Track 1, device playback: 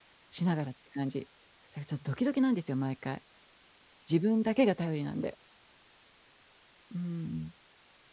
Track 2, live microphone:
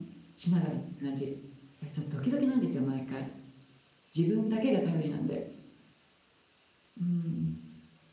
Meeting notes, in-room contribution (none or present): none